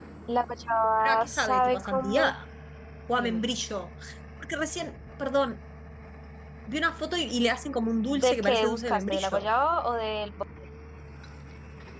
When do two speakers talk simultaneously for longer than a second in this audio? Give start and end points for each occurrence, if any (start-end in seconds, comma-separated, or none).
1.0-2.2, 8.1-9.5